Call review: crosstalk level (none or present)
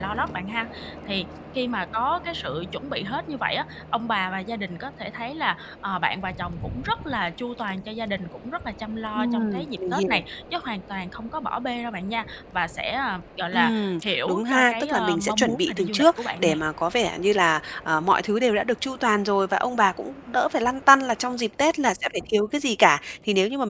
present